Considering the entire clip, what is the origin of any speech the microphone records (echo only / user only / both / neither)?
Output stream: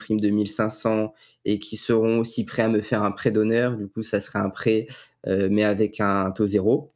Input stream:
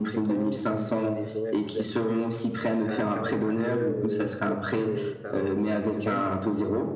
both